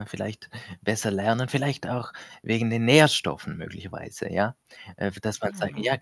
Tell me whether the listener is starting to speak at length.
No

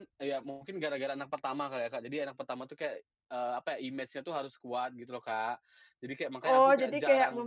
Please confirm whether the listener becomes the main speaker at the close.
Yes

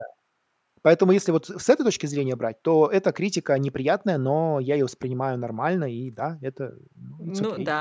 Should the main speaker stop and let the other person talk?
Yes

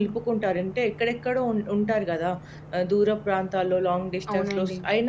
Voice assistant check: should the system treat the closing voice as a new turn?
No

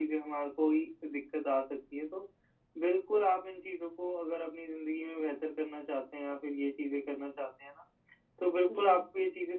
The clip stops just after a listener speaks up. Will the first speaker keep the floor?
Yes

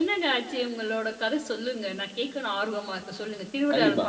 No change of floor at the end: No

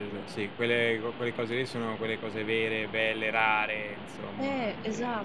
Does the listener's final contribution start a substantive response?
Yes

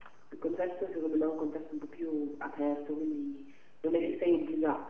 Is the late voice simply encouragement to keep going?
Yes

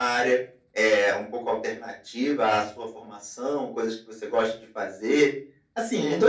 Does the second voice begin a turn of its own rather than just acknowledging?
No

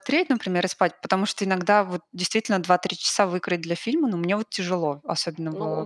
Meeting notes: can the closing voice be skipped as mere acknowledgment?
No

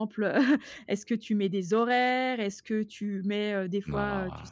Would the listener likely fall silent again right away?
Yes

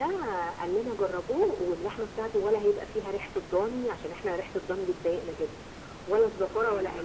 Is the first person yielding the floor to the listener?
Yes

